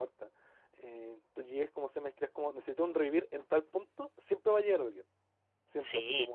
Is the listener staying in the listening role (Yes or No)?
Yes